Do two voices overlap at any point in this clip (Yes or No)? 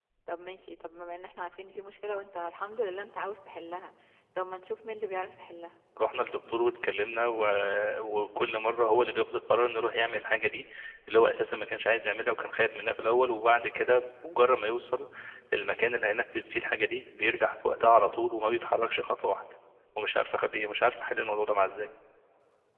No